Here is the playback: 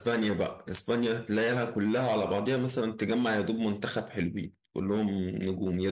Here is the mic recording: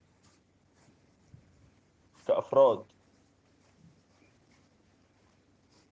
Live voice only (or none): كأفراد